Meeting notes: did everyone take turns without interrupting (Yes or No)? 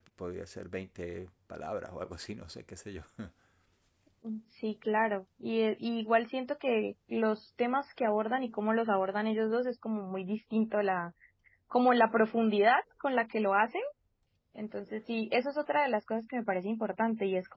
Yes